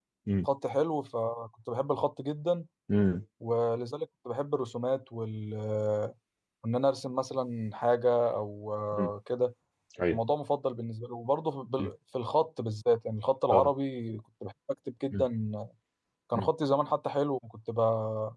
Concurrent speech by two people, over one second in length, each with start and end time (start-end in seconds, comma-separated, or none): none